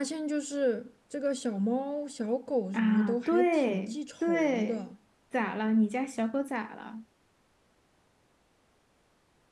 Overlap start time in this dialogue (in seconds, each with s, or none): 2.7 s